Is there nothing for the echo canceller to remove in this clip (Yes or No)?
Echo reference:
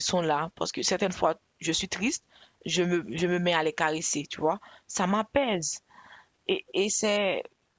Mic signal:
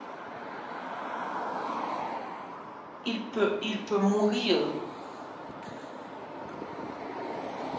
Yes